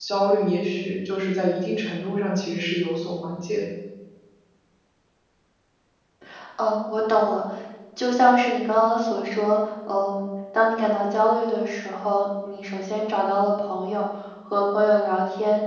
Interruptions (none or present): none